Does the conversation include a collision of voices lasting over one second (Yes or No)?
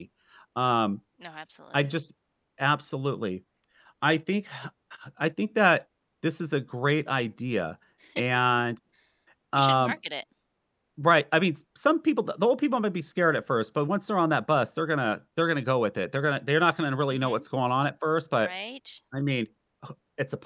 No